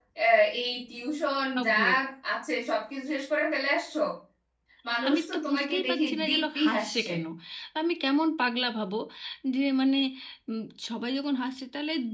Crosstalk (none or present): present